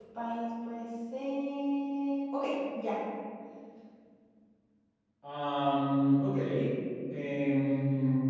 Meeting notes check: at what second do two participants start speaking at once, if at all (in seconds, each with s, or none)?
none